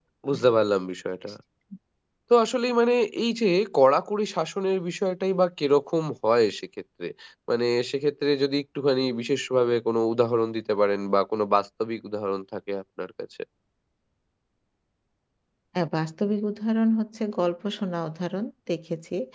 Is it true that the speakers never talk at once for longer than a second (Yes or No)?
Yes